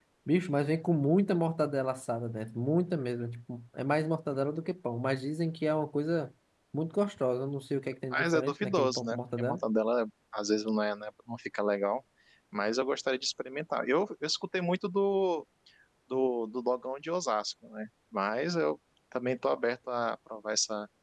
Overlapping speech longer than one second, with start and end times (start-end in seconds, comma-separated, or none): 8.1-9.6